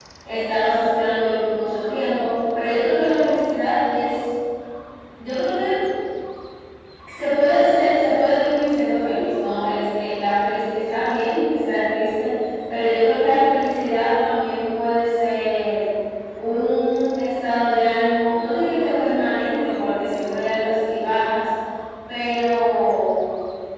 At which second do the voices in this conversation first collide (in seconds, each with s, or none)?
none